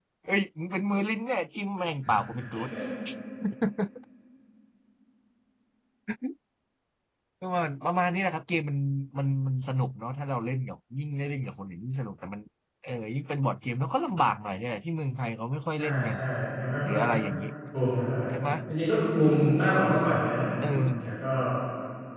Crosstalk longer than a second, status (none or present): none